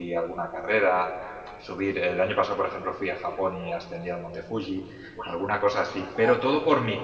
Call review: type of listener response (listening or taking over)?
listening